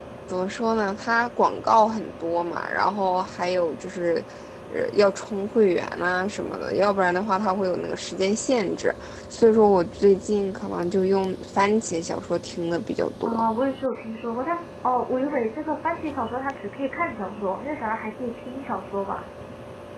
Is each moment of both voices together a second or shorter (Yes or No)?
Yes